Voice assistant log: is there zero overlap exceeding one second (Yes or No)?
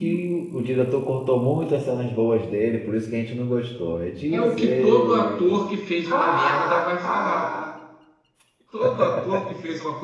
No